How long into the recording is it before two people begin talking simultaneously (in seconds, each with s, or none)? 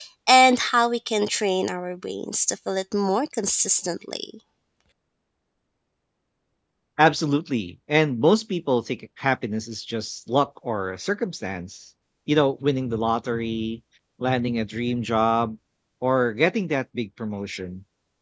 none